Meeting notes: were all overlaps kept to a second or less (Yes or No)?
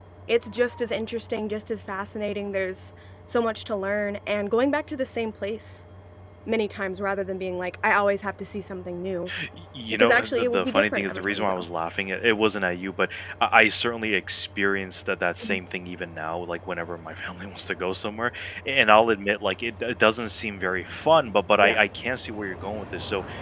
No